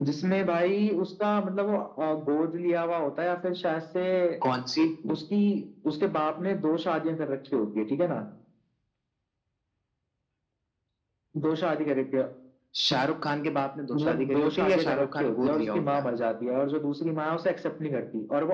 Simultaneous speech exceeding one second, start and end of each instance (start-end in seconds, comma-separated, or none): 13.9-16.1